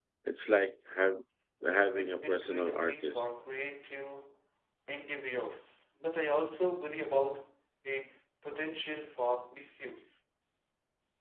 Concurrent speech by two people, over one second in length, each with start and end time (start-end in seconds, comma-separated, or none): 1.9-3.3